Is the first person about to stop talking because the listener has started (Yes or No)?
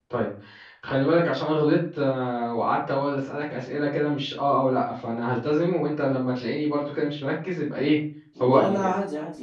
Yes